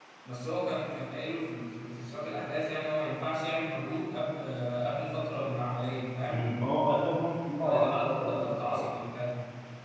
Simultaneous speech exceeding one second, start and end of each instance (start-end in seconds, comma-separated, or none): 7.6-8.9